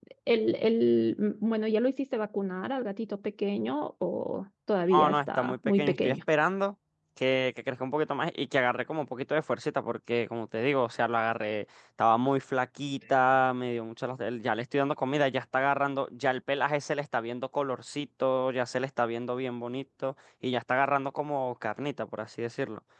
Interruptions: present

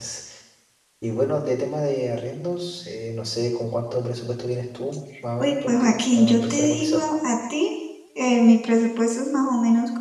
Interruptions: present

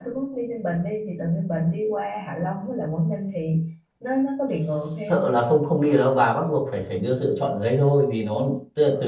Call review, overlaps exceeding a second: none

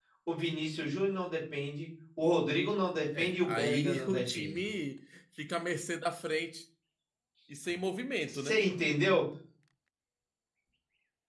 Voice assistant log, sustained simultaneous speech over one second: present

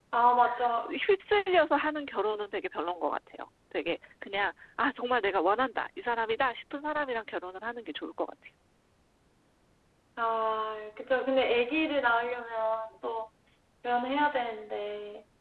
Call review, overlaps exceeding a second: none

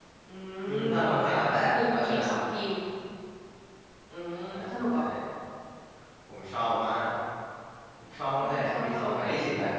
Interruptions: present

